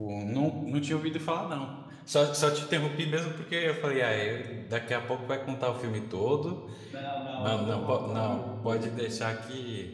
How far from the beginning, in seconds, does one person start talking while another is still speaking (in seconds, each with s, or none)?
7.4 s